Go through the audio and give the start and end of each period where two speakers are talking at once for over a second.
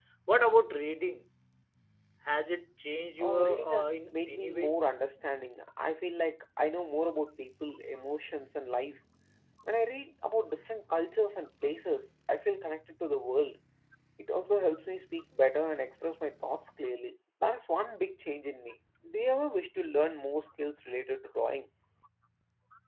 3.2-4.8

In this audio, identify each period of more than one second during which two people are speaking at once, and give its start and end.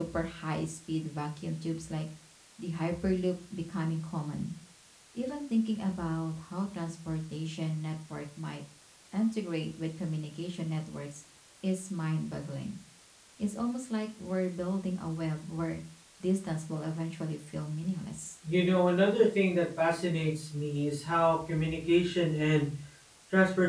none

